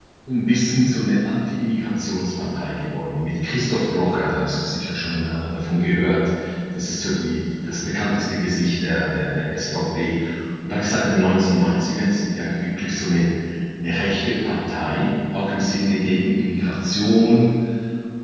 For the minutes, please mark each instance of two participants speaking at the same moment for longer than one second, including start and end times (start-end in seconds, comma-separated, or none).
none